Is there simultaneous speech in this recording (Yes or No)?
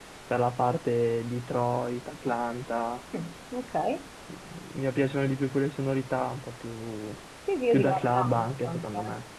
Yes